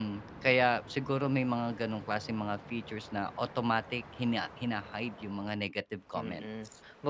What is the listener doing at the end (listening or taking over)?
taking over